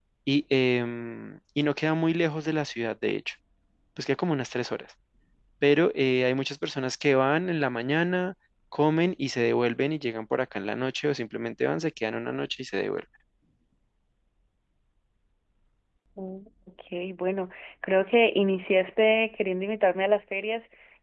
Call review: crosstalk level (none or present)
none